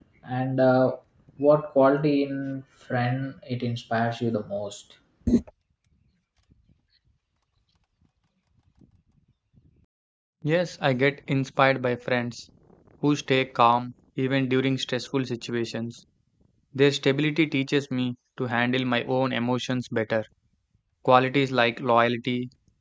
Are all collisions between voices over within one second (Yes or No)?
Yes